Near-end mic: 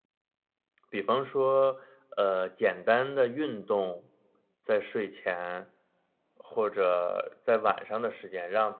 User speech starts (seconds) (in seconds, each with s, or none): 0.9 s